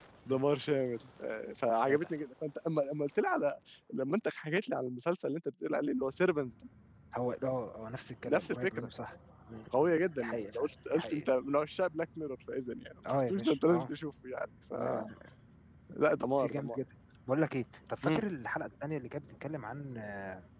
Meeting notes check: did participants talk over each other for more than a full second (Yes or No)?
Yes